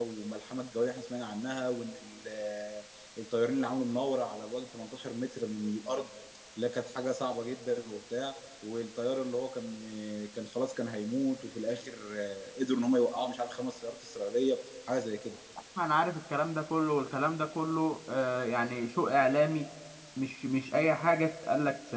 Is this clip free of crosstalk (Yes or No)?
Yes